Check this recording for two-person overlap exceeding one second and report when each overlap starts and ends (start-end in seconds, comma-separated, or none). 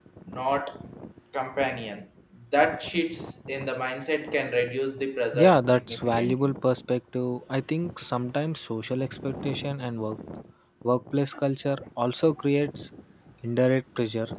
5.3-6.5